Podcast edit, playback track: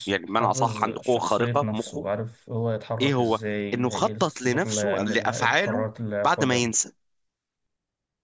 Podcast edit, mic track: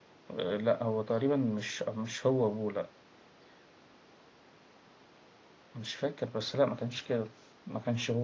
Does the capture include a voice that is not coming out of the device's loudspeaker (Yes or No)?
Yes